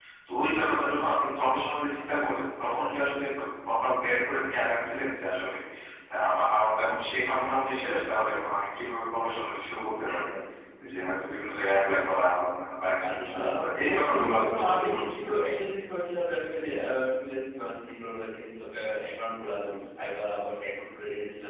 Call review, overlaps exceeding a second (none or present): present